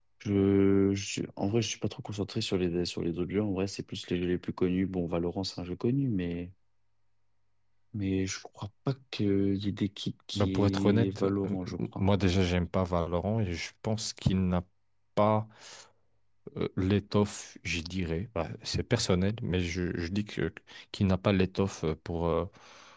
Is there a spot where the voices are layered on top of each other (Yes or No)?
Yes